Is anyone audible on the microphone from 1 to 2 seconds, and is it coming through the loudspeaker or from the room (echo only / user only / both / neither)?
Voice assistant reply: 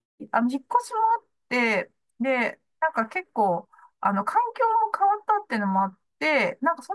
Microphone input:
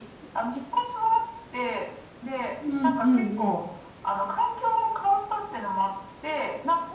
echo only